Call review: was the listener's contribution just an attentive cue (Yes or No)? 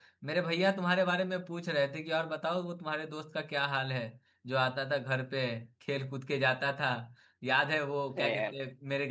Yes